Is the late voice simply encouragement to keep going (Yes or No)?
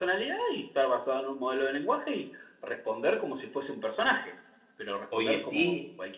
Yes